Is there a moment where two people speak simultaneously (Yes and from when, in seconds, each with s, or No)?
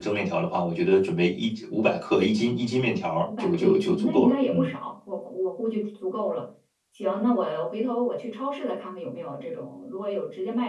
Yes, from 3.2 s